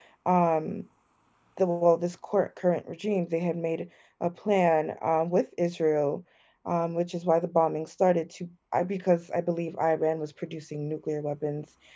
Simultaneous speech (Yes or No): No